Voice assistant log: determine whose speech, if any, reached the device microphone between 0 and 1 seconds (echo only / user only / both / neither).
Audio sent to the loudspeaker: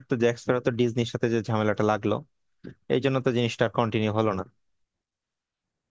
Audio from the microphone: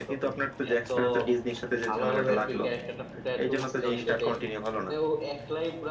both